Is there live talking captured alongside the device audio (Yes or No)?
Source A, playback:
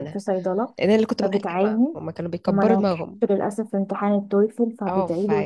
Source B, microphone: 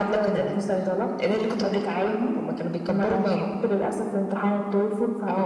No